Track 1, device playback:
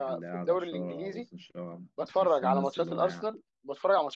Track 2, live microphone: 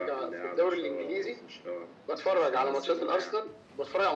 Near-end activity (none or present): none